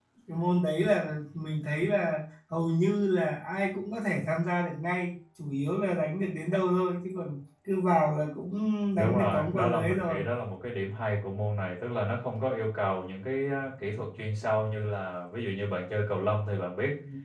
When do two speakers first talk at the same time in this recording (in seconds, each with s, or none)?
9.0 s